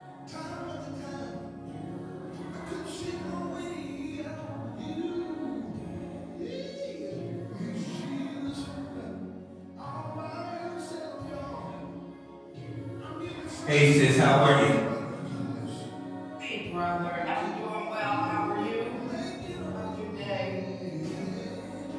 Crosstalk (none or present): present